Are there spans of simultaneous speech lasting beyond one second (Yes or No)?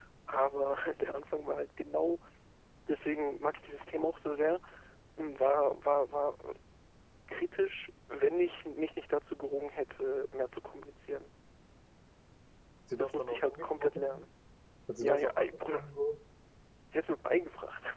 Yes